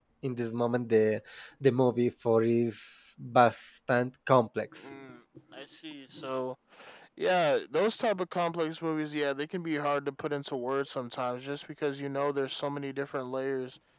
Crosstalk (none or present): none